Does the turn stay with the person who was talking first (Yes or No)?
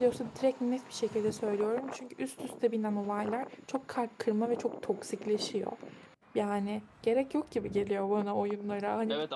No